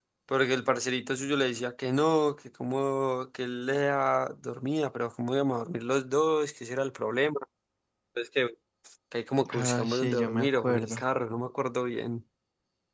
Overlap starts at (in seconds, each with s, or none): 9.5 s